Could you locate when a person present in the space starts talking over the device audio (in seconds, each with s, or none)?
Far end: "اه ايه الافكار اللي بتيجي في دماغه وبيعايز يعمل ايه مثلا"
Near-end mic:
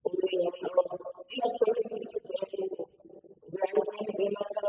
none